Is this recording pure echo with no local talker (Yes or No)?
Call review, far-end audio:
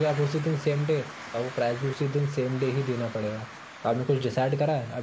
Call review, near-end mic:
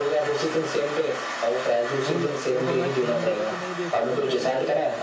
No